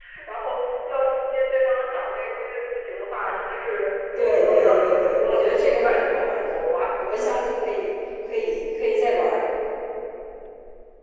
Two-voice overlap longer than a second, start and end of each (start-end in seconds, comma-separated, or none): 4.2-6.6